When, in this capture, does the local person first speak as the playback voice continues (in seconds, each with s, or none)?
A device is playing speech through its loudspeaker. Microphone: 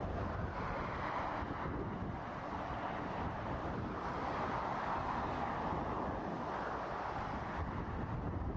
none